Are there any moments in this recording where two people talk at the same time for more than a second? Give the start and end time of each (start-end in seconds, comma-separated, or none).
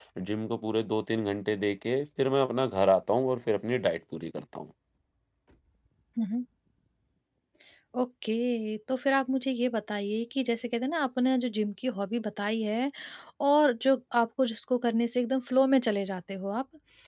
none